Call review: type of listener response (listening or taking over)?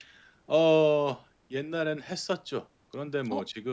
listening